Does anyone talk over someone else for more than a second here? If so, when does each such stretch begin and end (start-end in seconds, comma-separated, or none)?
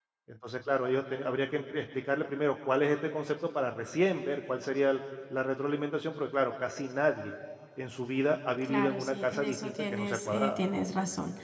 8.7-10.6